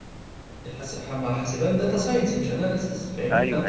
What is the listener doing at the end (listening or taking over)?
listening